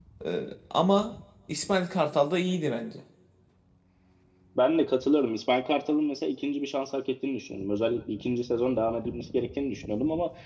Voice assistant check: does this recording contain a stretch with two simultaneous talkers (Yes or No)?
No